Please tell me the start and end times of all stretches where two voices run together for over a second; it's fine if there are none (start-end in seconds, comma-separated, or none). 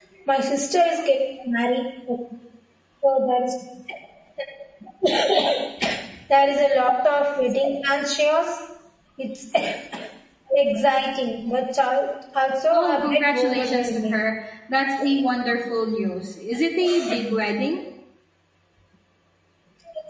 12.7-14.2